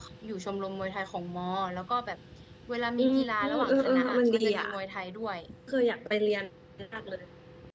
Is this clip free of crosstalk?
No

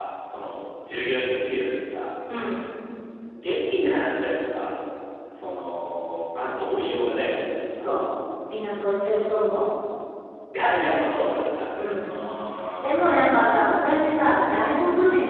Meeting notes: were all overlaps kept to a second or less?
Yes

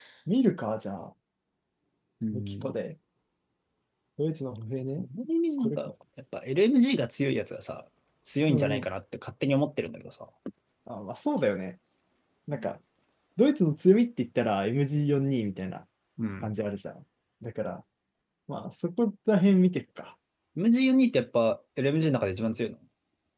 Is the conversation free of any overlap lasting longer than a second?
Yes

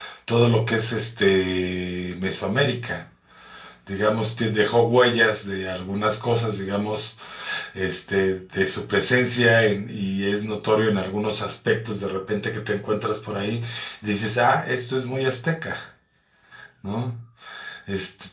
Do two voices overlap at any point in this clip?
No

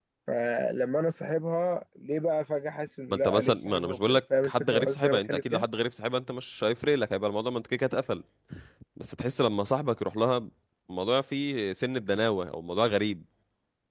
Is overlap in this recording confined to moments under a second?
No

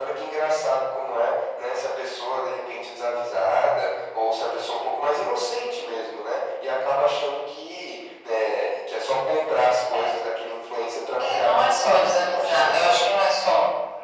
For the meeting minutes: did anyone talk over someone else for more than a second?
Yes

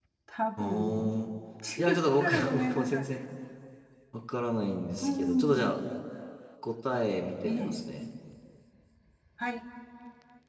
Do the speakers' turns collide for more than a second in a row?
Yes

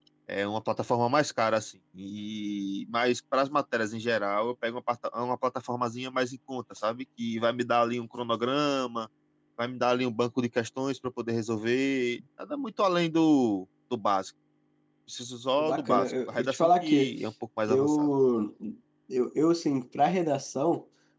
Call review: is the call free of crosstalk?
No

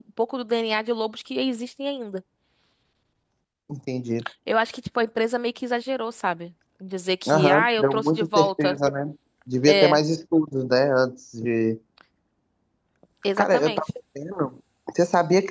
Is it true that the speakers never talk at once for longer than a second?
No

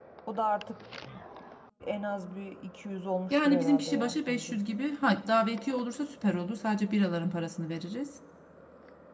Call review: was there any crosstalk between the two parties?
Yes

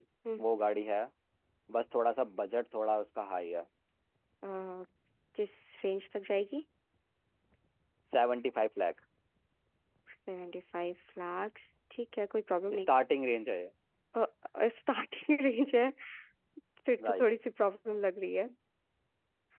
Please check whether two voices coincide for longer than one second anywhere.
No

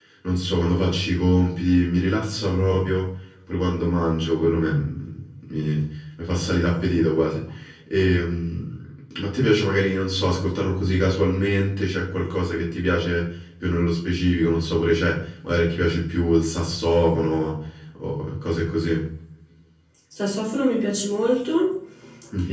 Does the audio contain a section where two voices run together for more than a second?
No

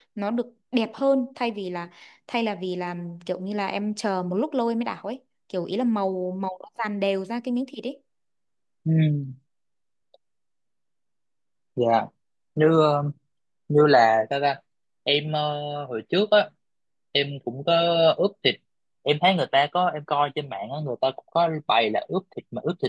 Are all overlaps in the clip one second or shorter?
Yes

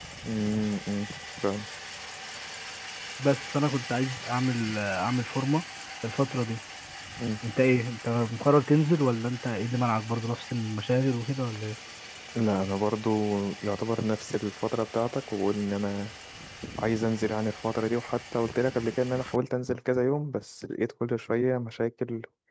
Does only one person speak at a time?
Yes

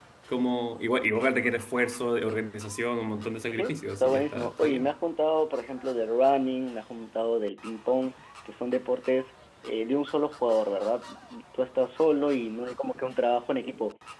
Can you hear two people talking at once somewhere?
Yes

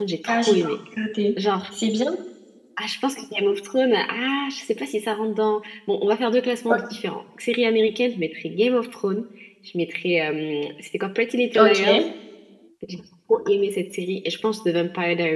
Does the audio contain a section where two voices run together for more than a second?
No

